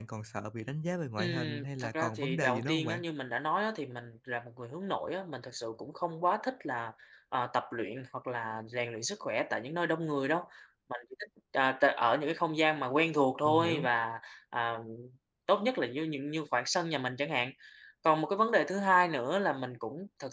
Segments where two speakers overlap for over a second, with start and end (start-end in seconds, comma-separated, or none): 1.2-3.0